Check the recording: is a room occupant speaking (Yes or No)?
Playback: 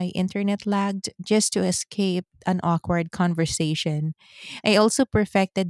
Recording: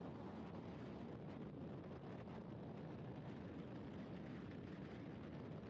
No